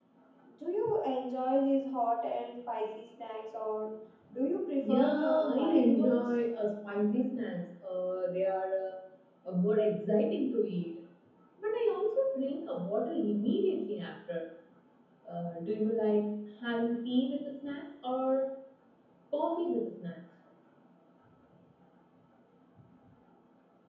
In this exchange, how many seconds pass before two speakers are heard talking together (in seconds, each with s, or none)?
4.8 s